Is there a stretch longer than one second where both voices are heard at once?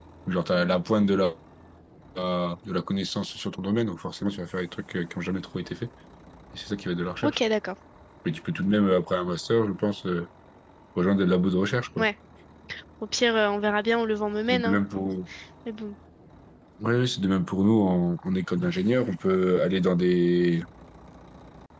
No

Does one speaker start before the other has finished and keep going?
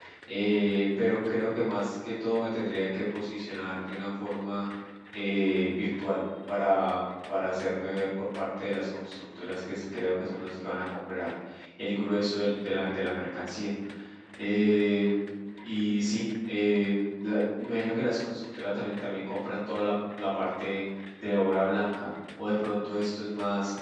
No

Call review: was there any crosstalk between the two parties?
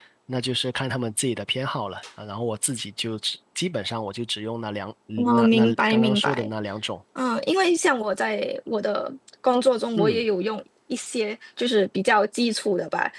Yes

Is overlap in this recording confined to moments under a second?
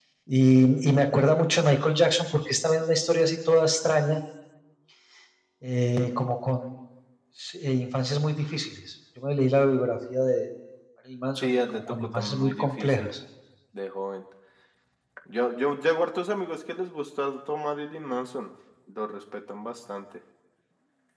No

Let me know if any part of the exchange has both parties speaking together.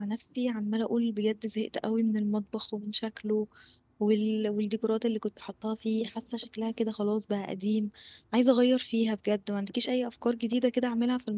No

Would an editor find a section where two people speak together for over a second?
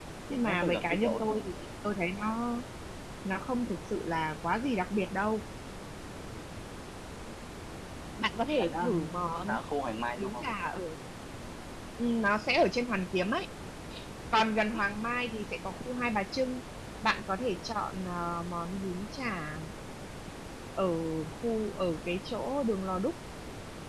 Yes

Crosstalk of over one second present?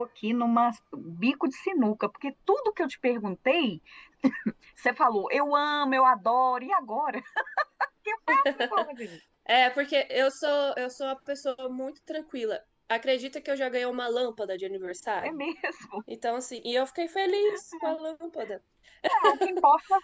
No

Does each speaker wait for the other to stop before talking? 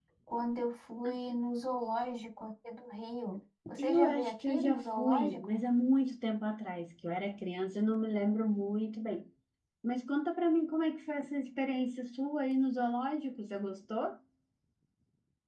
No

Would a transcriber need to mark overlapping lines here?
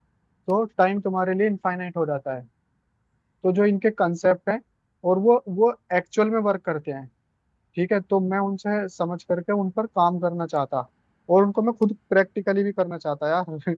No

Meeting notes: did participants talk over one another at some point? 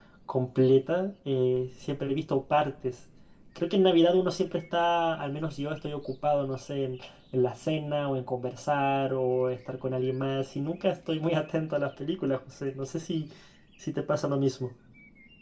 No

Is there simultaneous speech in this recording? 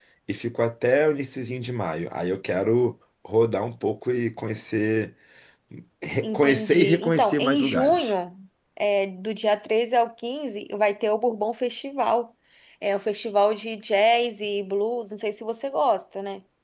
Yes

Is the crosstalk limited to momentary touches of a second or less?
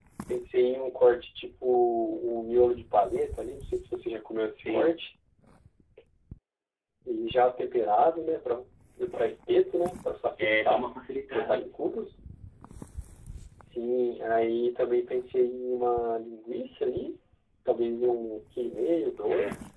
Yes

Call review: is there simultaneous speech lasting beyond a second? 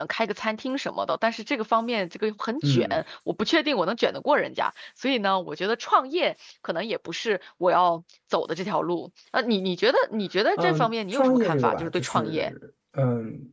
Yes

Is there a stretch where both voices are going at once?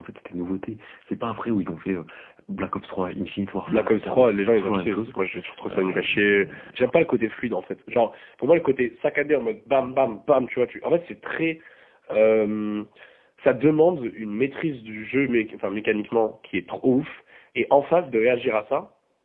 Yes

